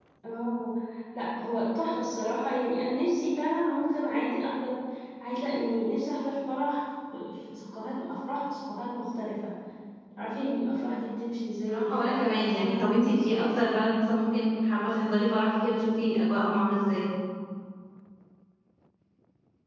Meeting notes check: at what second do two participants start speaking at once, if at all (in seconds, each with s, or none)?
11.7 s